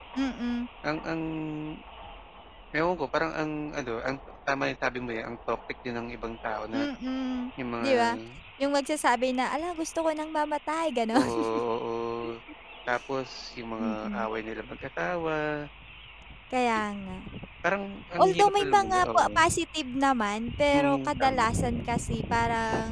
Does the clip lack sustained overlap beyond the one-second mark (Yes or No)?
No